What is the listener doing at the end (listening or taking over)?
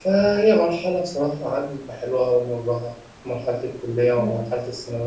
listening